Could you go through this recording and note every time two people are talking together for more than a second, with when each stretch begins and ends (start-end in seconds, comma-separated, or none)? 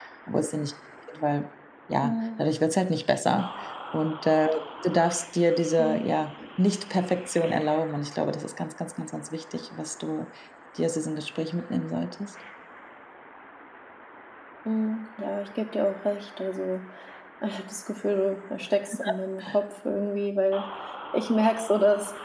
none